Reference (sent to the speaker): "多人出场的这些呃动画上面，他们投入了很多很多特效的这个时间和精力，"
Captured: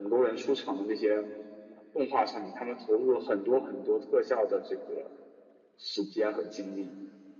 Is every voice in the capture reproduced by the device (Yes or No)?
Yes